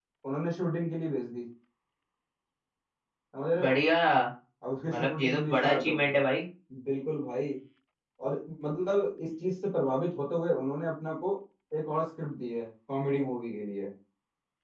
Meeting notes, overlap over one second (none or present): present